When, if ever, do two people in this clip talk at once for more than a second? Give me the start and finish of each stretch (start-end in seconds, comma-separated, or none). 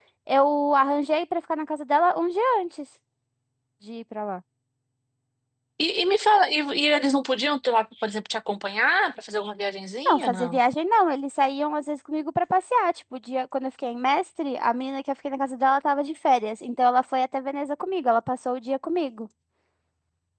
none